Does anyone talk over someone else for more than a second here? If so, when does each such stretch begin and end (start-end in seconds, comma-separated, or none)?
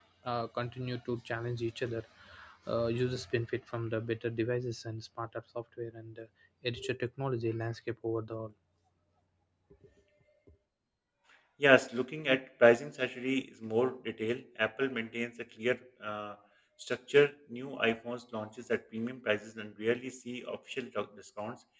none